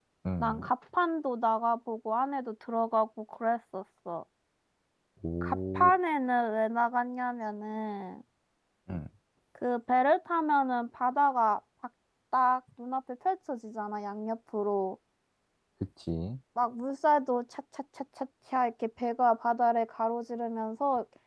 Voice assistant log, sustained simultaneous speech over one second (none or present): none